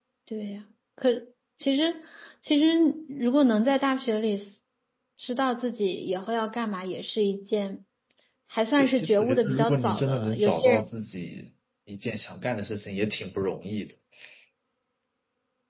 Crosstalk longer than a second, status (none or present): present